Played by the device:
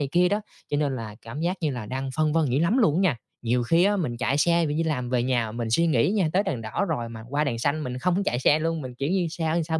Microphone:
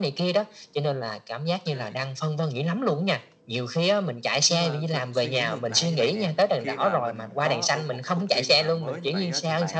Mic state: both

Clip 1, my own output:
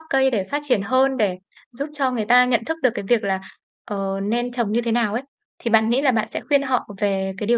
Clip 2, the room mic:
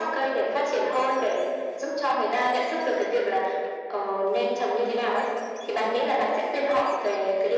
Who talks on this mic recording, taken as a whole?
echo only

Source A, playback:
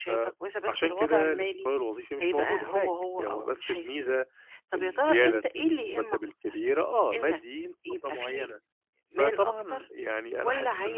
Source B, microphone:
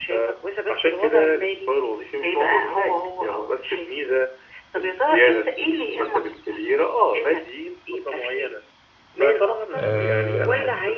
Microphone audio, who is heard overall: both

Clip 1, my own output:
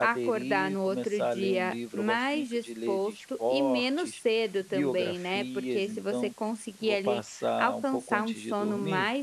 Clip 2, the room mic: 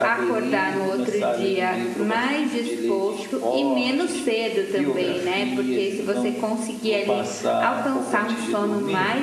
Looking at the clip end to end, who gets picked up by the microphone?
echo only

